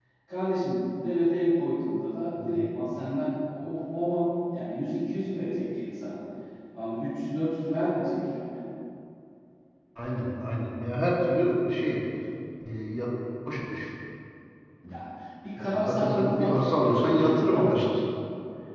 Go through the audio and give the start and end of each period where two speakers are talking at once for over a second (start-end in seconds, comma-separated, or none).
15.6-17.9